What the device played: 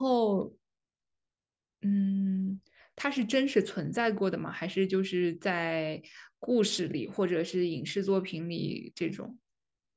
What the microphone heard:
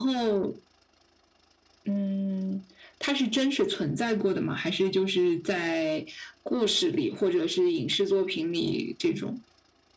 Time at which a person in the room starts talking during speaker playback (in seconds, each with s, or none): none